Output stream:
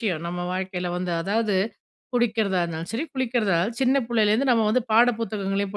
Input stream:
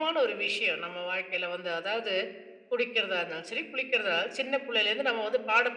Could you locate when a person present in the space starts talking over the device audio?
none

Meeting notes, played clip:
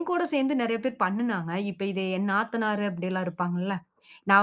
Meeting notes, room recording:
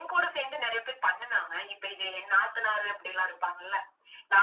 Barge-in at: none

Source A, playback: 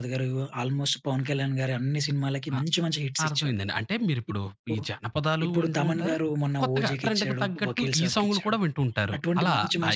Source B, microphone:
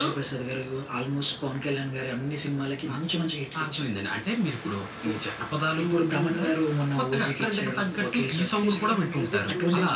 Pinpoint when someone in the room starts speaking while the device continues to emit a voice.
8.6 s

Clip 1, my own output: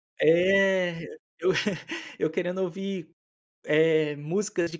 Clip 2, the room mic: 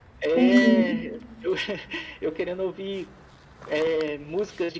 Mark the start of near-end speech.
0.3 s

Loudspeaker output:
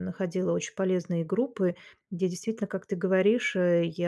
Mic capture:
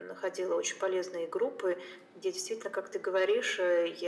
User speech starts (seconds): none

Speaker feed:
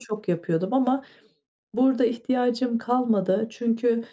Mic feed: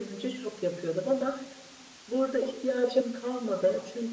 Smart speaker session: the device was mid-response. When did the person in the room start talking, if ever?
none

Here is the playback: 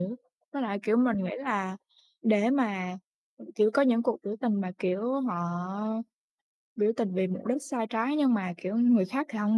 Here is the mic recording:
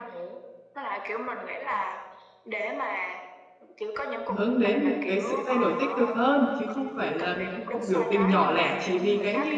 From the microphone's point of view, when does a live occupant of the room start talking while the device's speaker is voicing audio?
4.3 s

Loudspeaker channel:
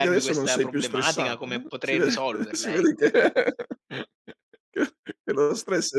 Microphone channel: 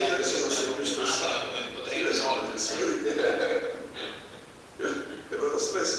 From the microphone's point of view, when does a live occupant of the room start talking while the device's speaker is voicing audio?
none

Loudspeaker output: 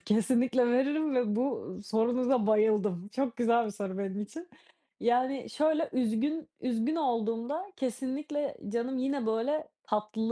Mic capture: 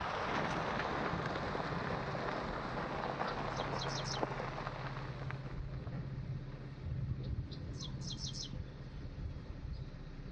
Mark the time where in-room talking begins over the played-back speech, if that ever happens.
none

